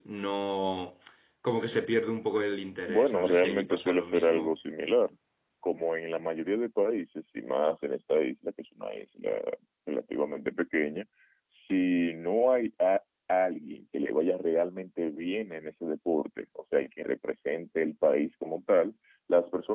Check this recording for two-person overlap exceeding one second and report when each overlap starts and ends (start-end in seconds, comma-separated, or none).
2.9-4.5